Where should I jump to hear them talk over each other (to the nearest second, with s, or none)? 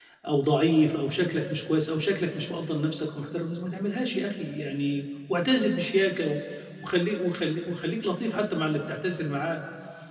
none